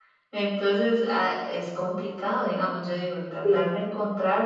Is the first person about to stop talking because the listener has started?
No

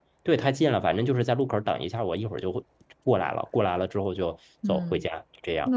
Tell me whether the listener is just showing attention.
No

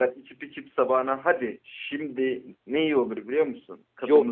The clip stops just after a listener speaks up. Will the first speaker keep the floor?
No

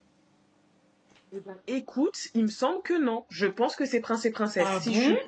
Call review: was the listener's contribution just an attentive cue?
Yes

